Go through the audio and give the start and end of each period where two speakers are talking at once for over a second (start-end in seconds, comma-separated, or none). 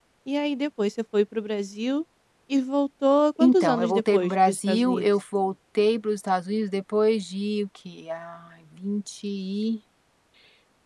3.4-5.1